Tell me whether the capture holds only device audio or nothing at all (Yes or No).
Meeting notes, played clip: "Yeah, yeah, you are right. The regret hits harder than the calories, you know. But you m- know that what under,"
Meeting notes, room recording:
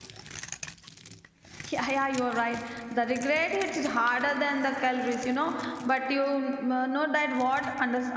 Yes